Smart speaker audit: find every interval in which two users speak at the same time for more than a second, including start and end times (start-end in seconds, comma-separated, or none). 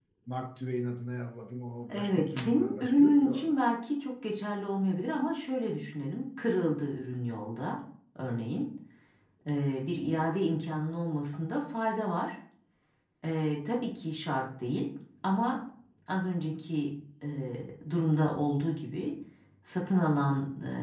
1.9-3.6